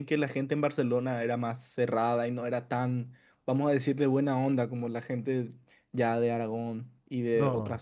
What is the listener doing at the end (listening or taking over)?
taking over